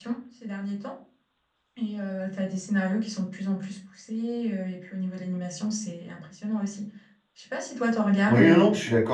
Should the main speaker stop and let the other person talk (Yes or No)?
Yes